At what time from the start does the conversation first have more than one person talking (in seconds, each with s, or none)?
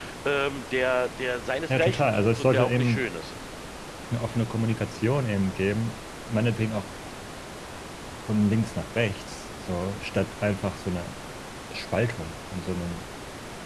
1.7 s